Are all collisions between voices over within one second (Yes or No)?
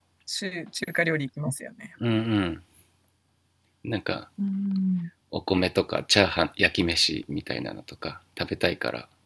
Yes